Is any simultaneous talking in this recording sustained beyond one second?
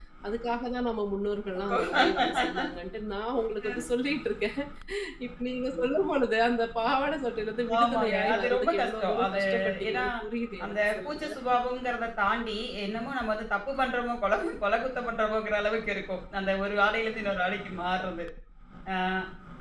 Yes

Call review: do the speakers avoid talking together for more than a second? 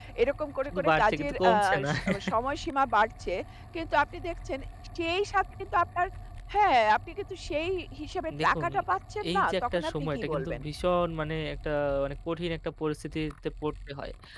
No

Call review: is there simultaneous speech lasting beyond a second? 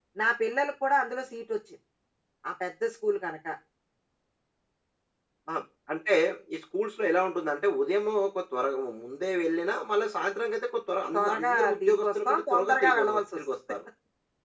Yes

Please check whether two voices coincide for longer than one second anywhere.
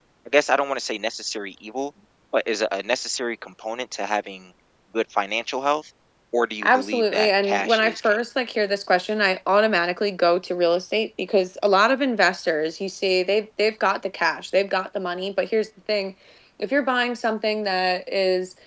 Yes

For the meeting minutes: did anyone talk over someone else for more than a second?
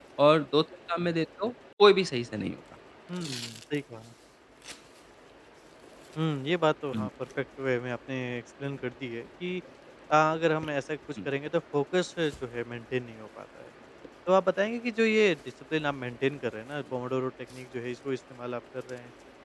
No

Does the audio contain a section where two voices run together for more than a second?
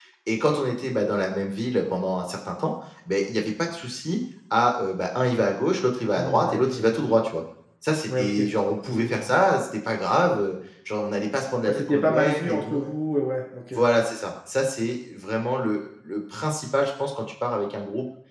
Yes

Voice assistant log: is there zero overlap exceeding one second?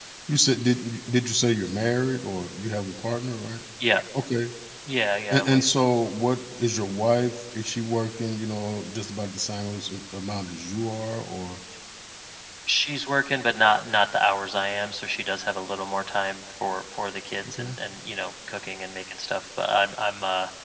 Yes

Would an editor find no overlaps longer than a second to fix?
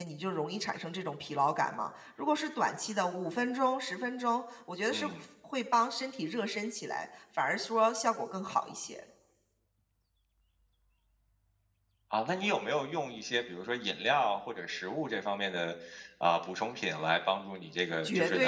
Yes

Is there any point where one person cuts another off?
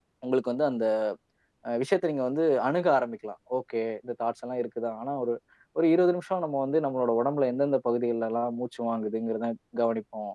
No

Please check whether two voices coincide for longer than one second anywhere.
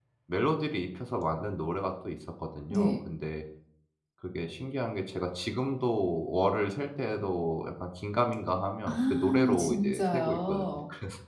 Yes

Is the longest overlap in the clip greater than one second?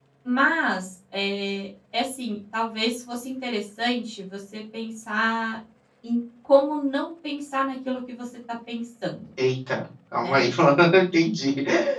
No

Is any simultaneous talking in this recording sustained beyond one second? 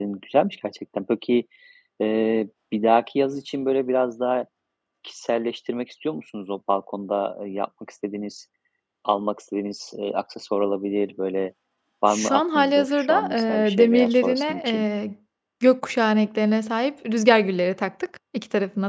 Yes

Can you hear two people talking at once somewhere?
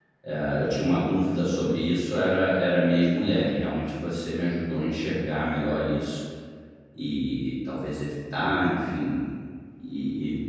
No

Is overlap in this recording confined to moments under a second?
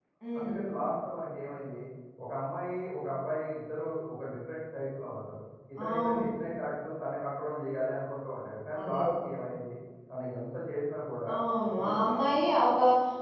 Yes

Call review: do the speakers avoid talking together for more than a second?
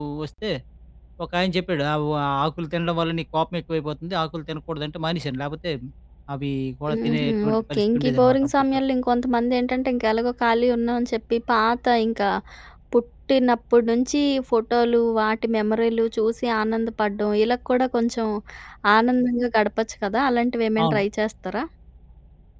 No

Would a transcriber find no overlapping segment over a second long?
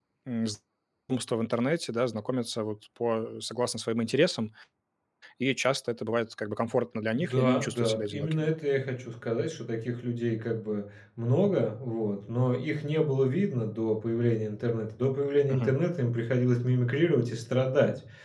No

